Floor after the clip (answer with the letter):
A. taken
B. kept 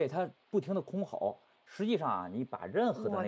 B